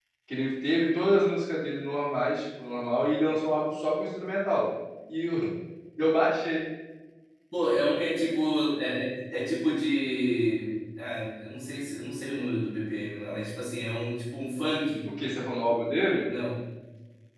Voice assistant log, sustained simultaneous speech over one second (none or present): none